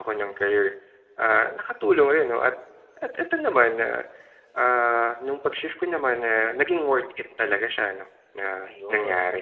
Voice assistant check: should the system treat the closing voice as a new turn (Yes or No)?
Yes